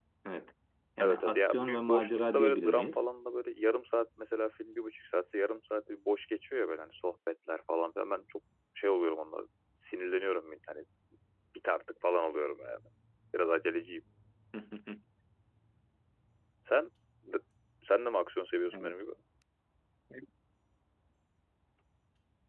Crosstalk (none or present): present